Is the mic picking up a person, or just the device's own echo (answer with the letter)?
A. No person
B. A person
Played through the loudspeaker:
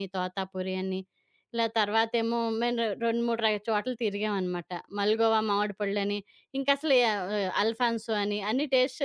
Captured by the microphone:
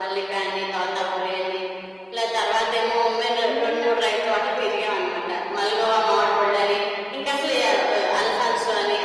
B